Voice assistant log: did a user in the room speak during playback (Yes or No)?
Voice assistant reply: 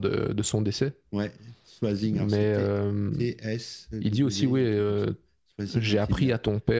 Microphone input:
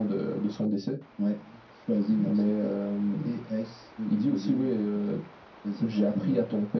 No